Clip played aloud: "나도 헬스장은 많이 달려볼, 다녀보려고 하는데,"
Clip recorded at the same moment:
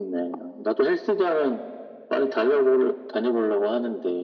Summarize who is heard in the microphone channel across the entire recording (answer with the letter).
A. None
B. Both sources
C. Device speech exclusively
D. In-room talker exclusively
C